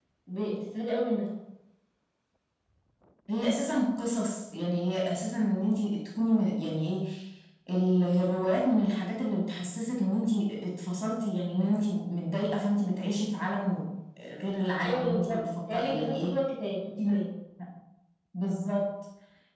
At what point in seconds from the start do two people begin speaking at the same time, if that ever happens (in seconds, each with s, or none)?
14.8 s